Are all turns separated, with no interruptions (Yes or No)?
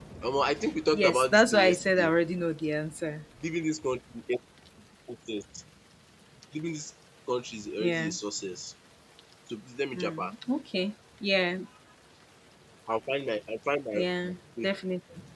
No